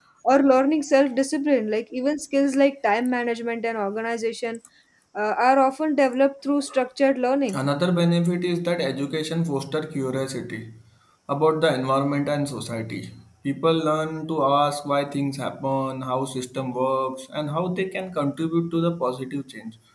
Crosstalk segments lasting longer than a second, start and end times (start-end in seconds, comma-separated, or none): none